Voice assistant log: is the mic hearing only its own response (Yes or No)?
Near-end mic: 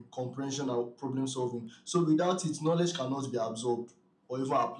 Yes